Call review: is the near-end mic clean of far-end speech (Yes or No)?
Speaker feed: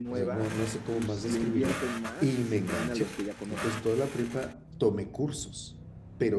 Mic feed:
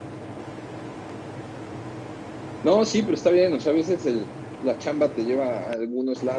Yes